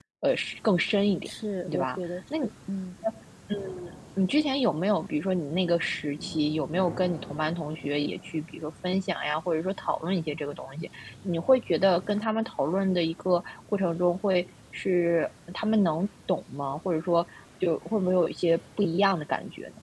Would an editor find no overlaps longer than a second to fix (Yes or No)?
Yes